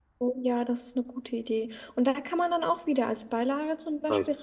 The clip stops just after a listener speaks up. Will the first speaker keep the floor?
Yes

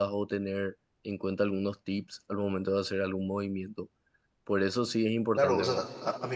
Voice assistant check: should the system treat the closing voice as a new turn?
Yes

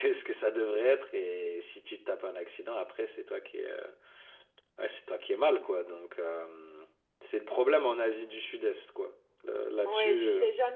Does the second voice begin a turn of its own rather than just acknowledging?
Yes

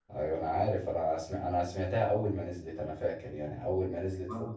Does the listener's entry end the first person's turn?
No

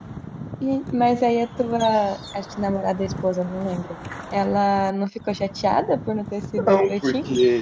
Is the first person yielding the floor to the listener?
Yes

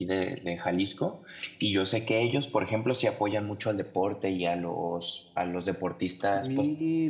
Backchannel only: Yes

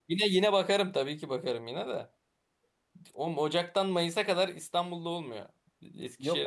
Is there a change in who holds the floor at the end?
Yes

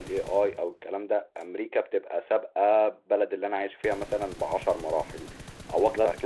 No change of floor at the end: No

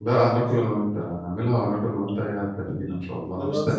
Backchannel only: No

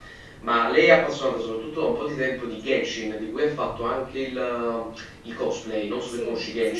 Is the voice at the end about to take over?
Yes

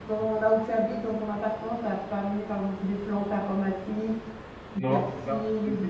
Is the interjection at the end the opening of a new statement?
Yes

